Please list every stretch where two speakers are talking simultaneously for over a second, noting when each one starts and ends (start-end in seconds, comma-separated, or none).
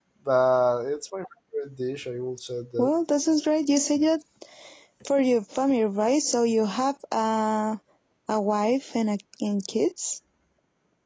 none